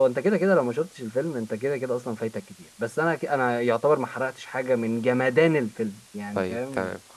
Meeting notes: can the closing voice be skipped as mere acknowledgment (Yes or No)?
No